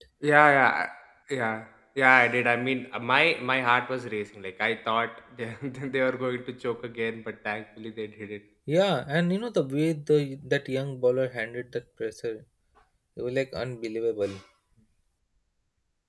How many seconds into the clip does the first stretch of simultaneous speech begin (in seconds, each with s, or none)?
none